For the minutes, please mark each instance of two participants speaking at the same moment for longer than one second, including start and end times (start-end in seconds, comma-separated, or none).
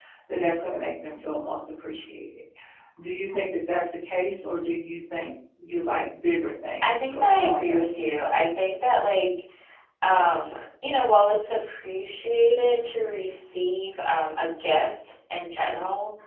6.8-8.2